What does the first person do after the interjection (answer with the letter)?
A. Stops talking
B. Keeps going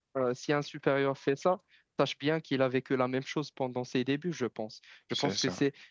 B